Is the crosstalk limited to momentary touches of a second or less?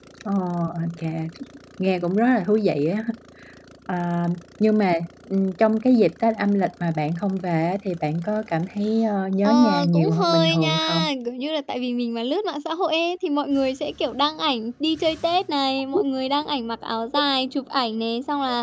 No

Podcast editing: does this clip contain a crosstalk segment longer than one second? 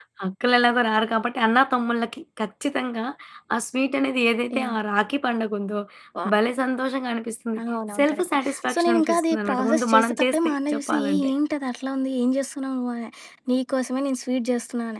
Yes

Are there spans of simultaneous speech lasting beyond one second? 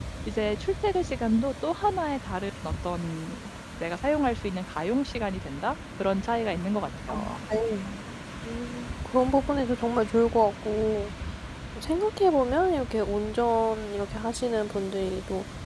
No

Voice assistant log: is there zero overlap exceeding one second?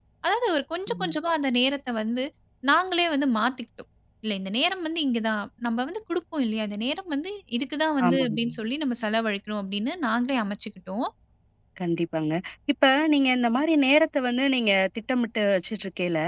Yes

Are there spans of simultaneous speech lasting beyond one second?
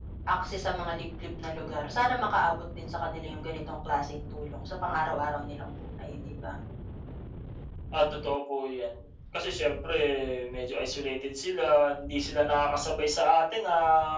No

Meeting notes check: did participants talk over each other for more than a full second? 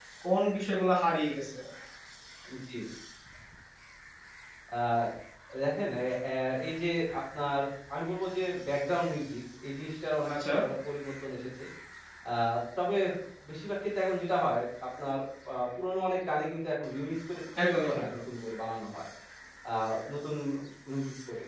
No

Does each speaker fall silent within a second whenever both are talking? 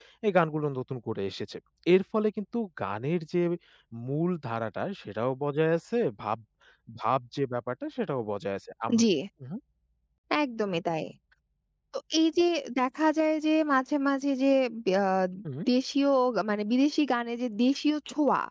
Yes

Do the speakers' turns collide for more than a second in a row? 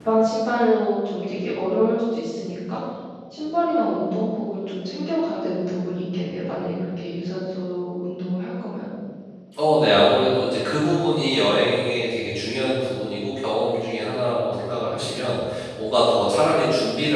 No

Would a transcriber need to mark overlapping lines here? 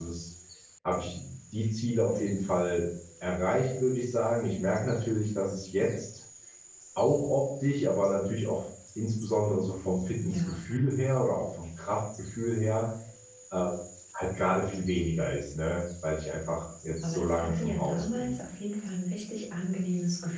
Yes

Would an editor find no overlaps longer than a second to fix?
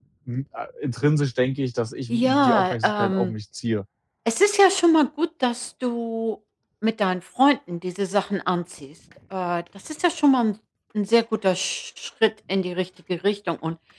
No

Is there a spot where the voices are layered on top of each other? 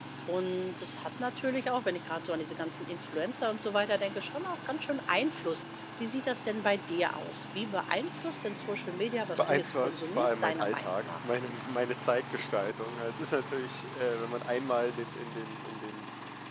Yes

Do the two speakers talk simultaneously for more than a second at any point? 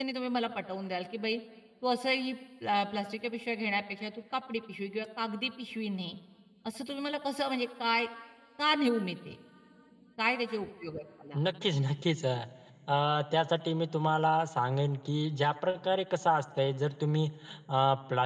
No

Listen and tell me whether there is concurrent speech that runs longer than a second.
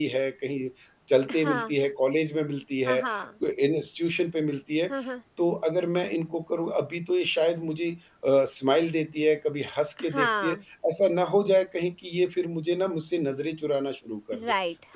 No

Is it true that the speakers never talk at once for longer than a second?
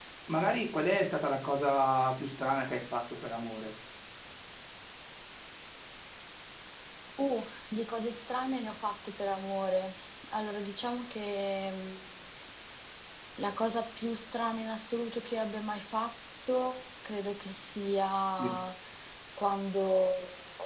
Yes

